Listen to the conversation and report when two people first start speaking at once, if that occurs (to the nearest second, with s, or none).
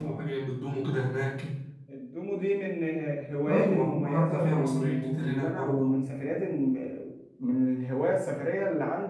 3 s